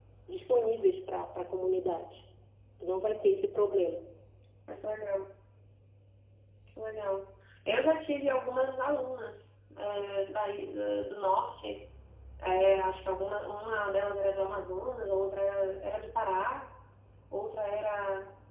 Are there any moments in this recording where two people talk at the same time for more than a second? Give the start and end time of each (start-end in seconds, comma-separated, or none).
none